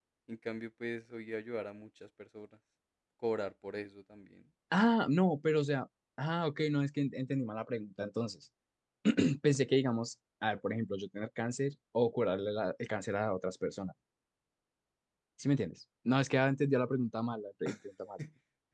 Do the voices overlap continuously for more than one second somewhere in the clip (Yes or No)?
No